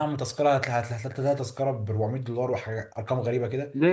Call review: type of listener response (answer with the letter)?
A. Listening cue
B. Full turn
B